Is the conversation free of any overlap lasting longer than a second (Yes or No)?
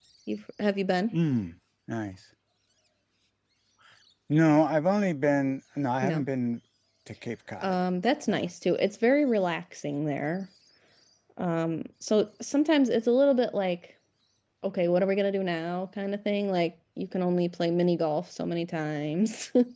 Yes